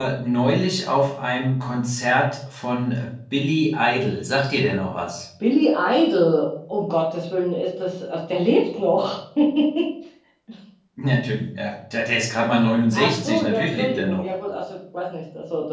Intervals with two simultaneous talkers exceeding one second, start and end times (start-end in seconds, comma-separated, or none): 12.9-14.2